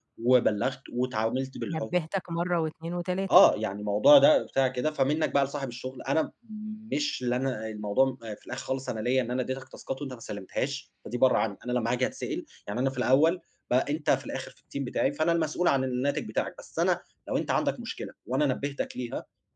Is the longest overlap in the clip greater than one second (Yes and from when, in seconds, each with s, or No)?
No